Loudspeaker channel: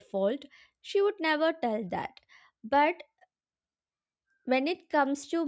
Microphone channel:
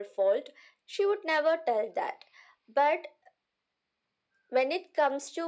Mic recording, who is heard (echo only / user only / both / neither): echo only